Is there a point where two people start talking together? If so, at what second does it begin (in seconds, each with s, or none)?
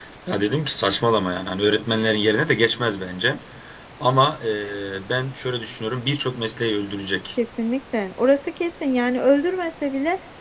none